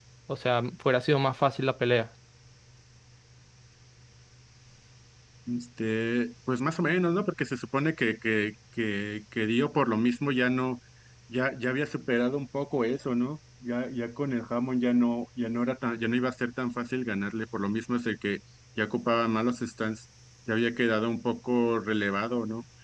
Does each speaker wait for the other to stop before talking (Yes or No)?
Yes